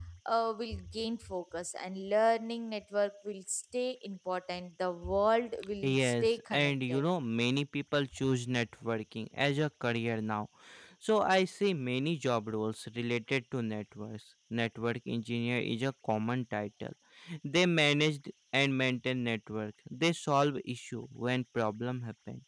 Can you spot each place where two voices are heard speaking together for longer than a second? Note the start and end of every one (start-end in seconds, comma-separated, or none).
5.8-7.0